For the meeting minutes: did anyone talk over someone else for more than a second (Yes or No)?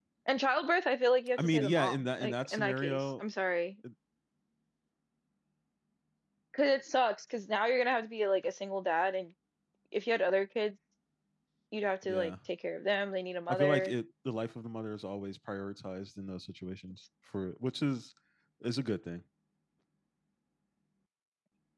Yes